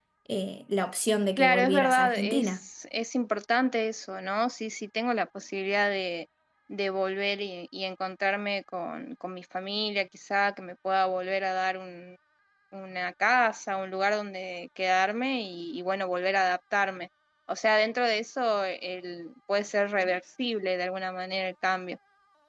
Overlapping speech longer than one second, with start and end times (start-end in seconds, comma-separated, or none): 1.4-2.6